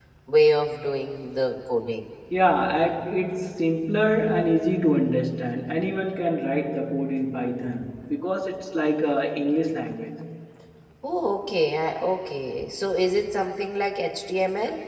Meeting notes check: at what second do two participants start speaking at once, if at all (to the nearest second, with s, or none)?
none